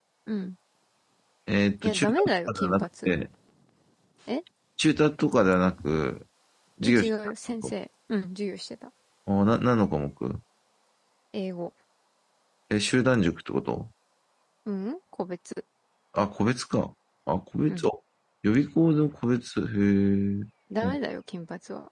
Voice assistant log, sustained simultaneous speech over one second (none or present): present